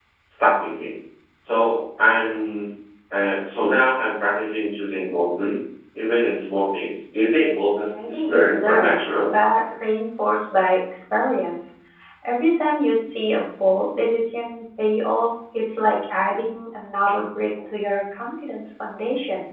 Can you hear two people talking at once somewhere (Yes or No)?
Yes